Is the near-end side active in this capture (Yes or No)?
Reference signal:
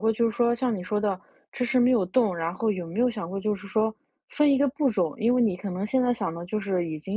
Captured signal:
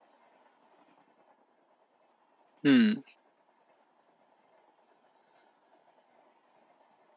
Yes